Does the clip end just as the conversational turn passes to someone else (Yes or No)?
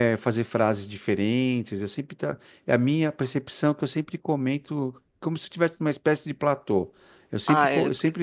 No